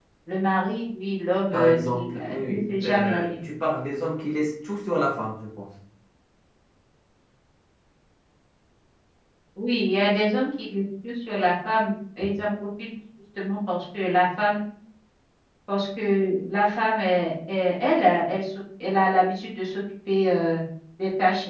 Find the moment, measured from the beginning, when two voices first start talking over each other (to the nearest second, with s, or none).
2 s